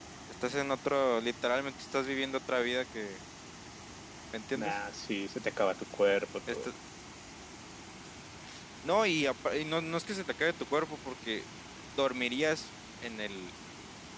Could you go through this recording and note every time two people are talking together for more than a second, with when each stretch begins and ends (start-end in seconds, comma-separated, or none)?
none